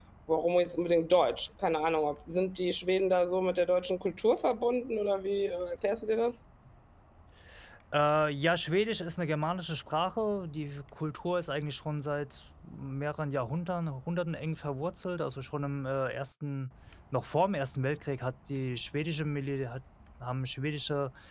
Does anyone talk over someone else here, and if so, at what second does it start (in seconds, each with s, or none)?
none